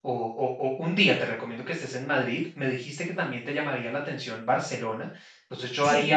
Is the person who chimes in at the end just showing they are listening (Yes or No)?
Yes